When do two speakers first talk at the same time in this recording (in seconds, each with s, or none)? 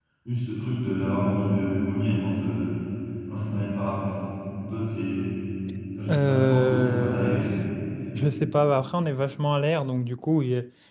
6.1 s